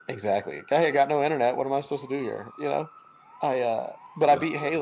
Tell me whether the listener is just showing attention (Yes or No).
Yes